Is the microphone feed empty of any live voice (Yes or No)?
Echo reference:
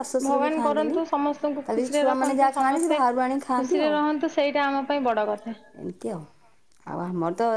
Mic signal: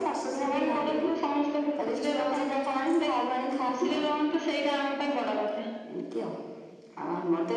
Yes